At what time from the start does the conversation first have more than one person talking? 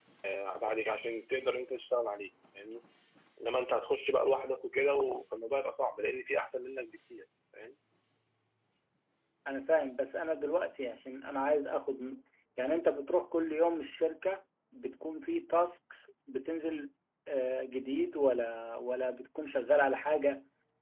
none

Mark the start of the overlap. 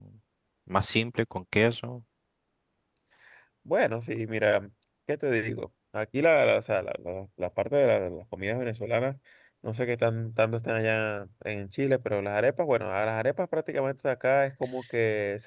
none

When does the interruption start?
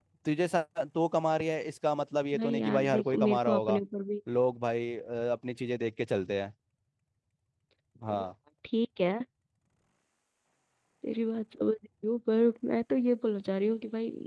2.3 s

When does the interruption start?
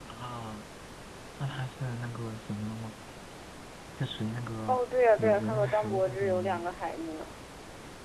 5.2 s

